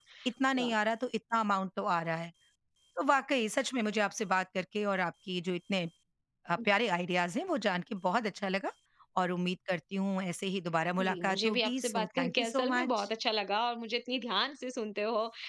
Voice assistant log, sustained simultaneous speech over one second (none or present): present